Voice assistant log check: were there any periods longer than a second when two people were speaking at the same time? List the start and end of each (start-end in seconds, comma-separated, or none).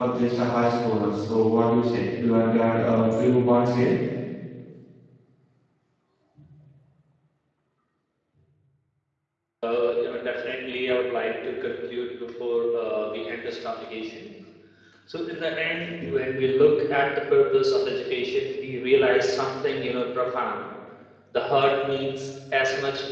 none